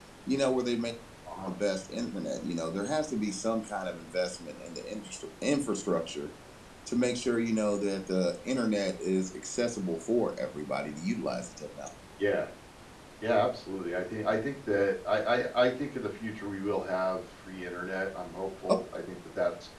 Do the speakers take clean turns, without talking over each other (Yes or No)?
Yes